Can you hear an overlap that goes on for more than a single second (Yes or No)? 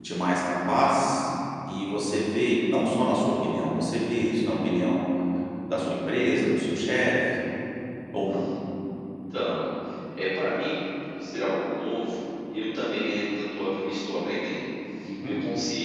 No